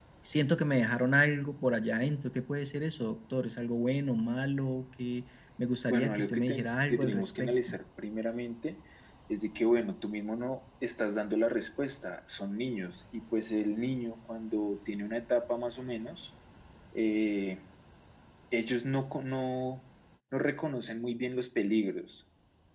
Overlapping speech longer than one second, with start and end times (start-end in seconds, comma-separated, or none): 5.9-7.8